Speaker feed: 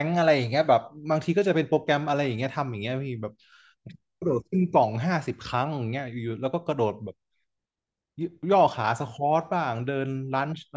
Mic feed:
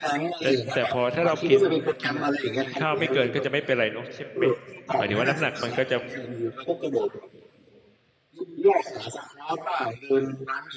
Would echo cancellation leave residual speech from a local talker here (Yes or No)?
Yes